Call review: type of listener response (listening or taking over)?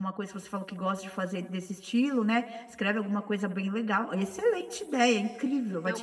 taking over